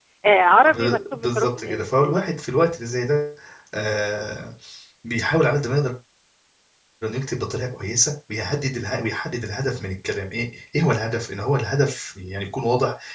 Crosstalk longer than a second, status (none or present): present